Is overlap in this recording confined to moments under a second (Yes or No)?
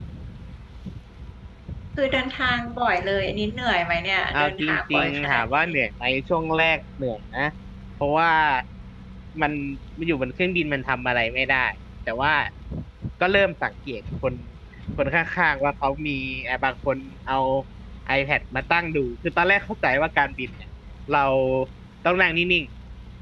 No